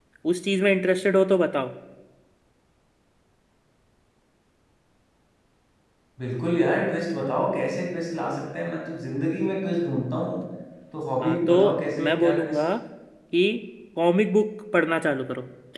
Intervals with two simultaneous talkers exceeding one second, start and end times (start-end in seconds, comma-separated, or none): 11.2-12.6